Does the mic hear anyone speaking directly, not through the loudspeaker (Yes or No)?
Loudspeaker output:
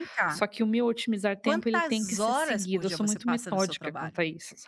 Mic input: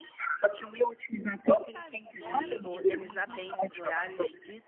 Yes